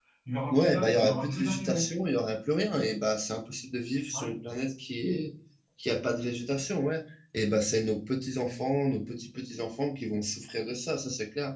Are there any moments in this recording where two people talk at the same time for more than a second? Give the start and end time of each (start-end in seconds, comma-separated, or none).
0.5-1.9